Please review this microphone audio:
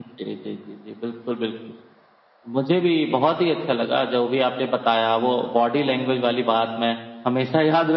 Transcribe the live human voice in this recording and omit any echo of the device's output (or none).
none